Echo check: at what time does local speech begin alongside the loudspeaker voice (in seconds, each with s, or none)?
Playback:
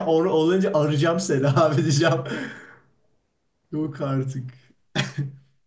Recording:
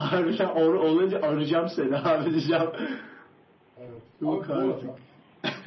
3.8 s